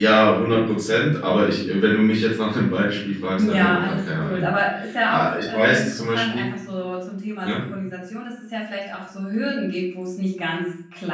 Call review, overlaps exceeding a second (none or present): present